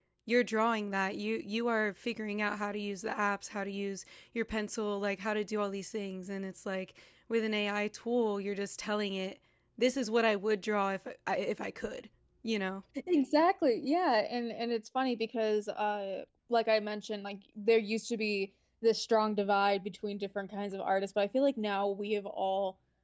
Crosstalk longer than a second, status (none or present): none